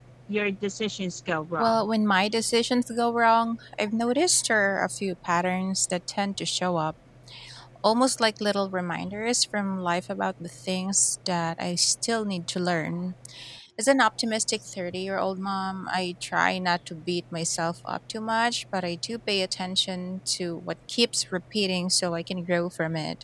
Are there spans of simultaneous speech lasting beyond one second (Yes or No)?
No